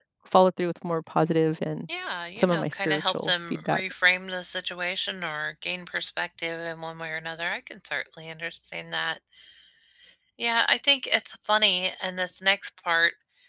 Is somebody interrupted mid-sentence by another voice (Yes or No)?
Yes